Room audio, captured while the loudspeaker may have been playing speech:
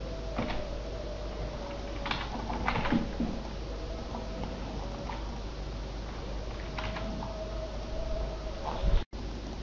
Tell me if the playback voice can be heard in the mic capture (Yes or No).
No